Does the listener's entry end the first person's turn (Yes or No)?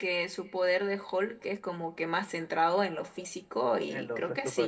Yes